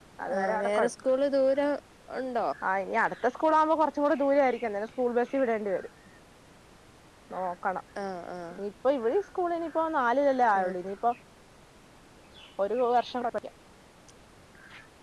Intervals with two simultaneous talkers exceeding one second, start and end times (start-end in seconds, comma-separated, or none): none